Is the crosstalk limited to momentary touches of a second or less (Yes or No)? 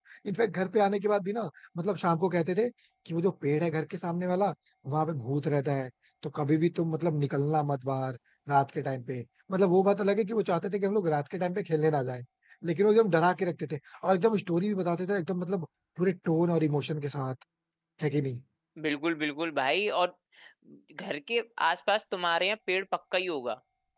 Yes